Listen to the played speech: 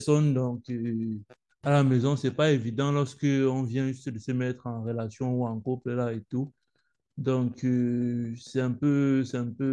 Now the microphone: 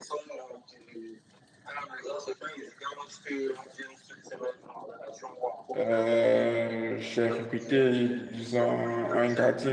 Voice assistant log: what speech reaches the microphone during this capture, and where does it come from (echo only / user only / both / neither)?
both